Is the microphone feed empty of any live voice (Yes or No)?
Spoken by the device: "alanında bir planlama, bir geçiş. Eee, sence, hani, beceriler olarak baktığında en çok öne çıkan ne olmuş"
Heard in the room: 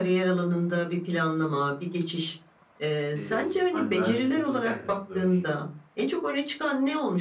No